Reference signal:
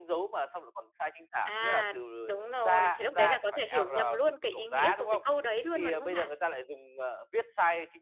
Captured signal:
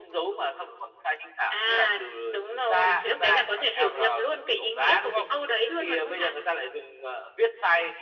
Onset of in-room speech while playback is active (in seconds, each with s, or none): none